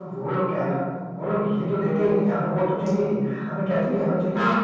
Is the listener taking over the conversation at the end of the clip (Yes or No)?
No